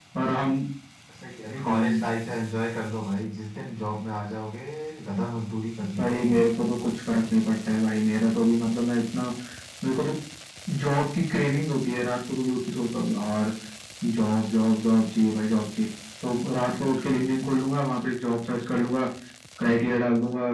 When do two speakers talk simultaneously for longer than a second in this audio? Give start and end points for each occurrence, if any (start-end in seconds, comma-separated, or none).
none